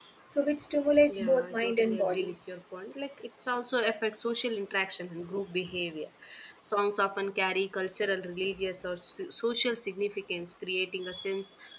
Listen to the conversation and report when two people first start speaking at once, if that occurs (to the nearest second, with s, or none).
1 s